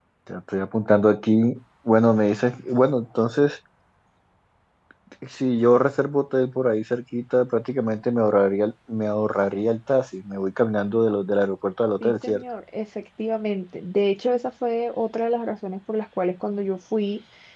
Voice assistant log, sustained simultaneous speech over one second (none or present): none